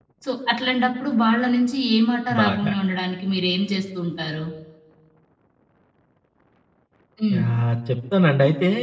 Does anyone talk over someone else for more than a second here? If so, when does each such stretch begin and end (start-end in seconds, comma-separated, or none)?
none